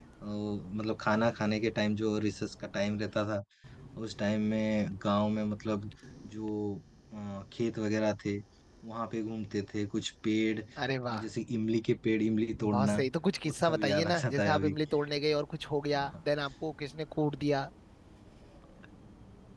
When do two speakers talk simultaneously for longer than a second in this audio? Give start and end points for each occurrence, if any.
13.4-14.8

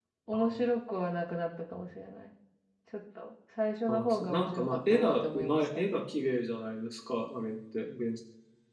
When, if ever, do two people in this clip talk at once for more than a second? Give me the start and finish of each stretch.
3.9-5.6

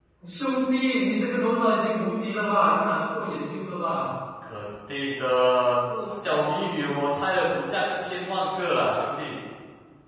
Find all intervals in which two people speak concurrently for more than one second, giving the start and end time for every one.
none

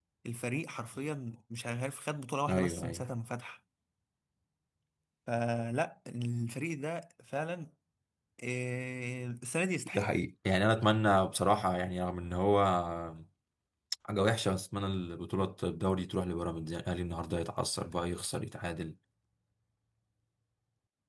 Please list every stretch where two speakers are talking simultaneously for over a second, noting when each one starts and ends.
none

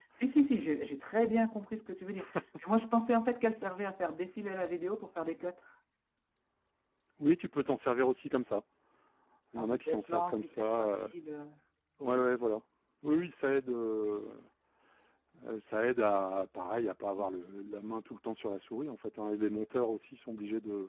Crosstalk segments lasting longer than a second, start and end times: 9.6-10.9

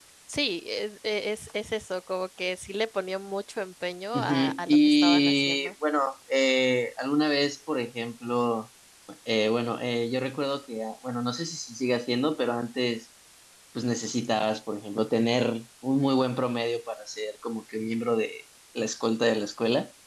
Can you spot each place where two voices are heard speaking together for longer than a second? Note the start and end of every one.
4.1-5.7

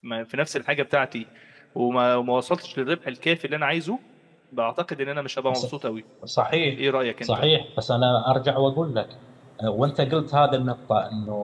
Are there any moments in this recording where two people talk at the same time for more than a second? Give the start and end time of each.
none

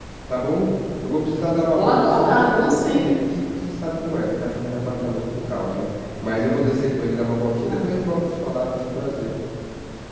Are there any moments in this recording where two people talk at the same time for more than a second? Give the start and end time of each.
1.7-3.0

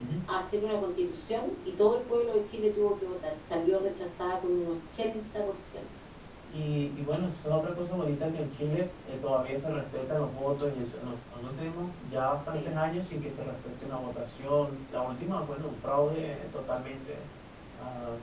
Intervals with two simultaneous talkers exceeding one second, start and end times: none

